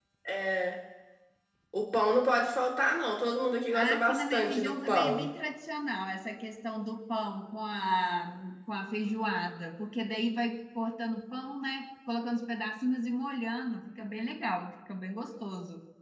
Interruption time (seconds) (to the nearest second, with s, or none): 4 s